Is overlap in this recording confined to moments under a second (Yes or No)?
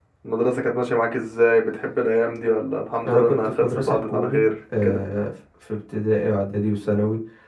No